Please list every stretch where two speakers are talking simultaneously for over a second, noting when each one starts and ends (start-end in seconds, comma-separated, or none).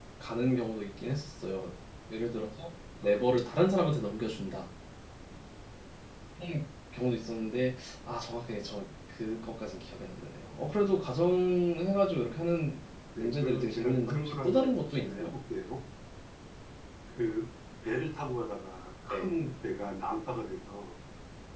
13.2-15.3